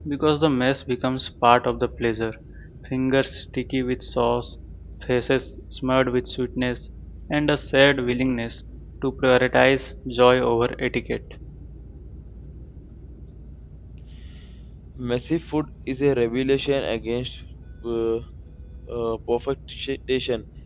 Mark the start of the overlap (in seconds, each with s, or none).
none